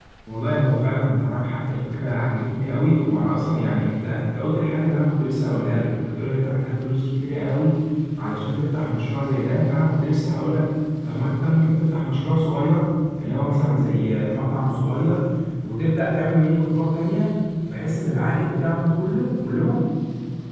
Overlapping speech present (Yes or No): No